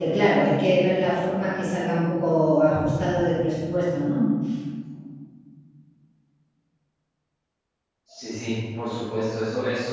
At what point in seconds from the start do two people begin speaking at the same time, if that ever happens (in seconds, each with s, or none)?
none